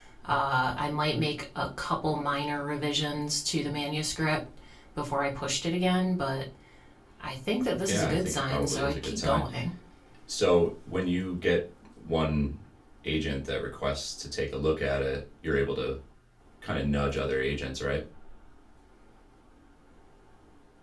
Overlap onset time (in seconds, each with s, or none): 7.9 s